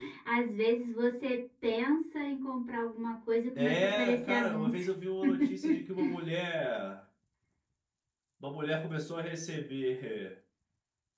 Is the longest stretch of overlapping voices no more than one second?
No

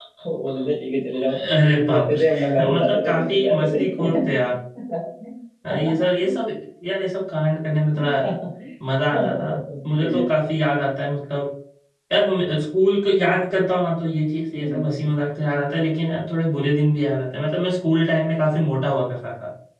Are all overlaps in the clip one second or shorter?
No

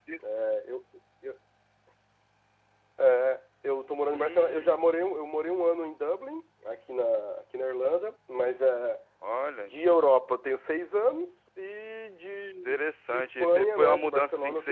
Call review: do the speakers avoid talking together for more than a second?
No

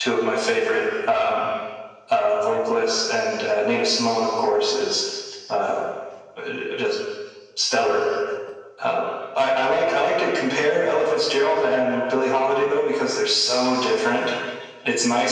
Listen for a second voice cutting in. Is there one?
No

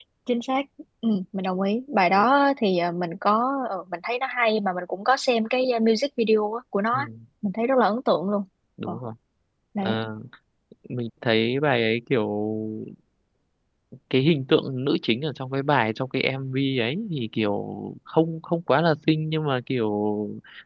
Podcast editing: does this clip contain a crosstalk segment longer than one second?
No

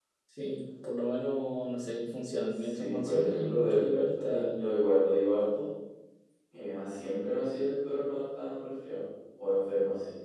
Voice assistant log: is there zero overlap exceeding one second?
No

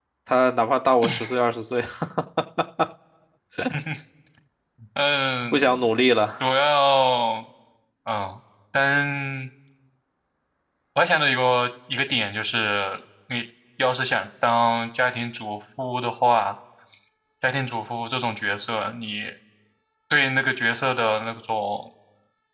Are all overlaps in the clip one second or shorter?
Yes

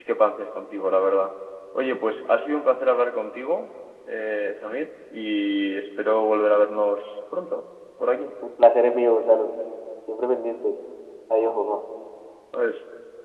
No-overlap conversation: Yes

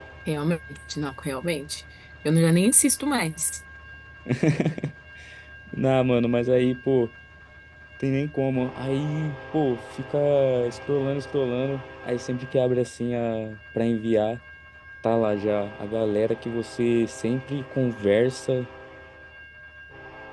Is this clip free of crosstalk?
Yes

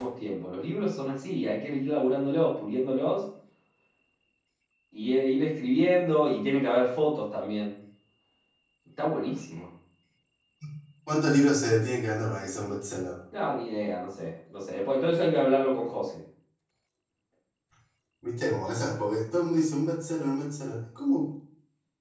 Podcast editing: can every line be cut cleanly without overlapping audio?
Yes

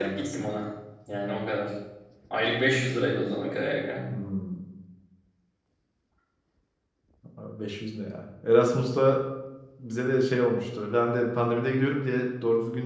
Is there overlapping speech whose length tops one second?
No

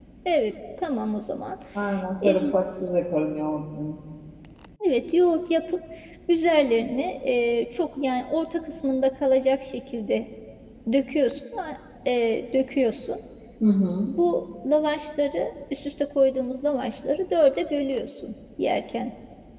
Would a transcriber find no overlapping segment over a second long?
Yes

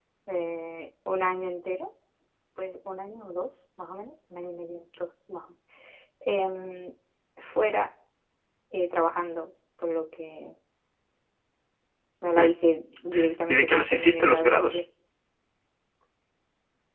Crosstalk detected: Yes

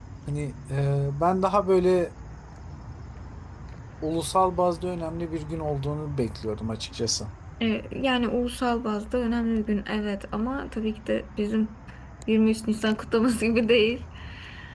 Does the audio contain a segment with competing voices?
No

